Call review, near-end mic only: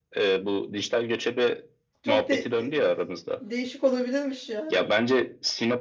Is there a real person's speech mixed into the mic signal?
Yes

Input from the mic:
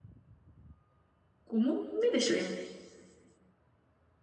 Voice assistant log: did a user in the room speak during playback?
Yes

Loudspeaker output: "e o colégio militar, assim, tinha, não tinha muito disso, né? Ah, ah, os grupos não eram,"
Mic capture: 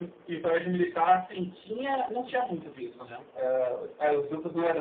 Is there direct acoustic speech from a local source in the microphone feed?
No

